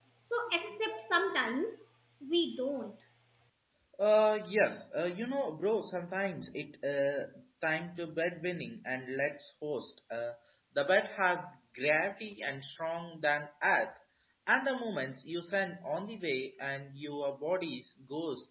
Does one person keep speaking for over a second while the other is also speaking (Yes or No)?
No